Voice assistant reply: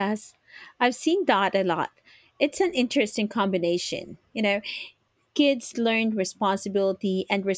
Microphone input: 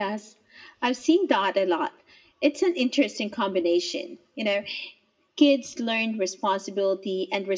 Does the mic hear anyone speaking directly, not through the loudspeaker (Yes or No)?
No